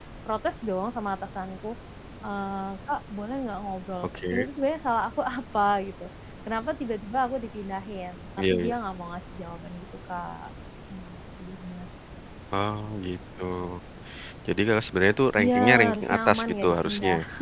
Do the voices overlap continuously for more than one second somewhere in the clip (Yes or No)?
Yes